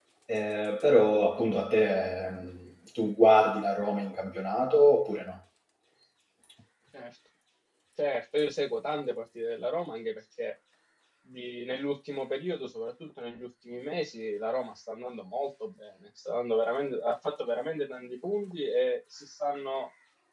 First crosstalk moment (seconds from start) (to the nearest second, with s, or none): none